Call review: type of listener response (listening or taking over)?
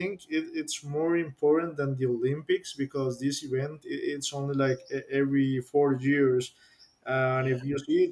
listening